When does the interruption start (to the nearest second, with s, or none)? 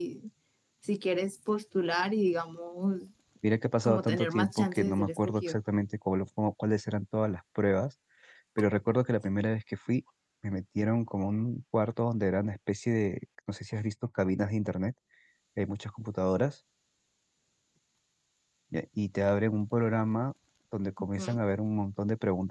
4 s